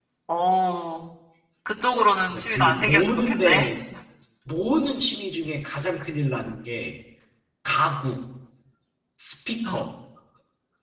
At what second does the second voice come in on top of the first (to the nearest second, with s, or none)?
2 s